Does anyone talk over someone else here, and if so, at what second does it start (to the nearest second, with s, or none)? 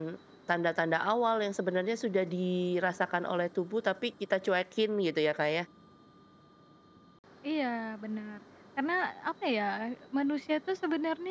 none